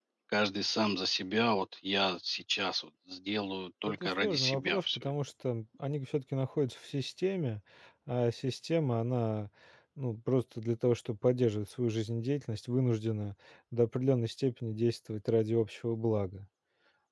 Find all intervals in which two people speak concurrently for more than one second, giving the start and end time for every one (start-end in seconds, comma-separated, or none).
3.9-5.1